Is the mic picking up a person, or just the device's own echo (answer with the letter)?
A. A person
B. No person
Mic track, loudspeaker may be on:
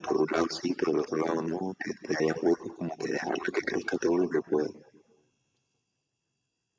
B